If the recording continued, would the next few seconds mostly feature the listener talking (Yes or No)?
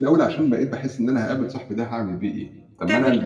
No